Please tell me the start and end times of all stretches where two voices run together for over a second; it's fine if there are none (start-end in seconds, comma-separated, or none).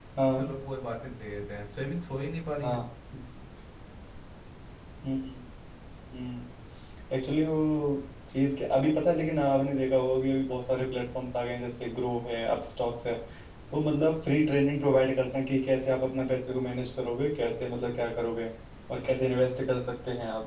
none